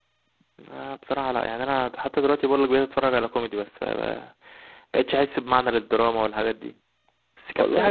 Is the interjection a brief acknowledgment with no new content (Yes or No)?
Yes